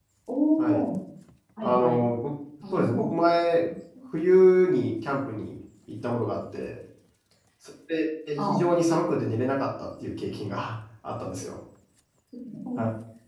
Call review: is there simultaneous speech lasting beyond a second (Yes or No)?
No